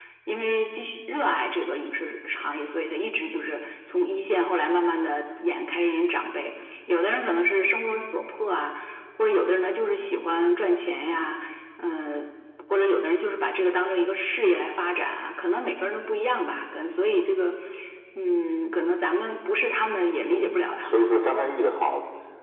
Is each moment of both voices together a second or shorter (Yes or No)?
No